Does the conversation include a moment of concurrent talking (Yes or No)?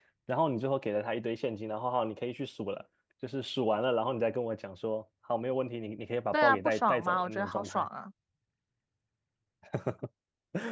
Yes